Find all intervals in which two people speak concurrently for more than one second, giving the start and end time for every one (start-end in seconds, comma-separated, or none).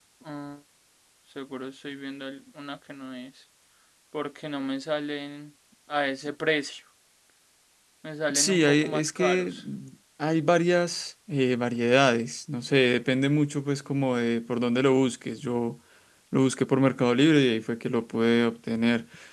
8.3-9.5